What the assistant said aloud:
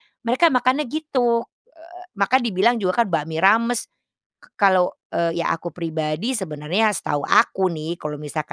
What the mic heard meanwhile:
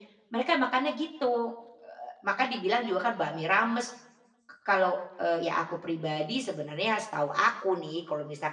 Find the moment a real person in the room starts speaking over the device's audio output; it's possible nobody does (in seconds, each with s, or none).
none